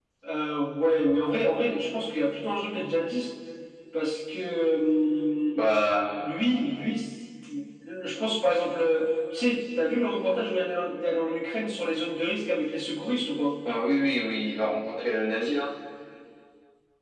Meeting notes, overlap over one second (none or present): none